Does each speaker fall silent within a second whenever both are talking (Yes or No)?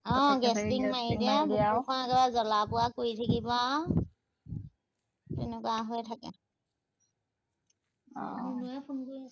No